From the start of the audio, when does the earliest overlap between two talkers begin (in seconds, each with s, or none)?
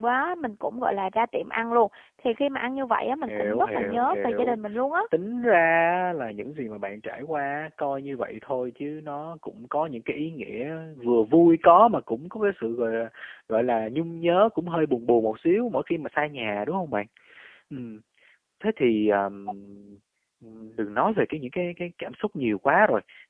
3.3 s